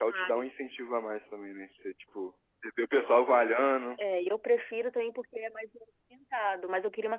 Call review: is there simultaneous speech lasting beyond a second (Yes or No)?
No